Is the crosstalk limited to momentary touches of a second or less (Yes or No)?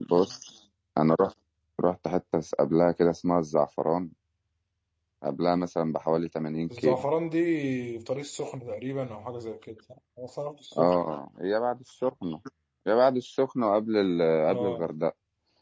Yes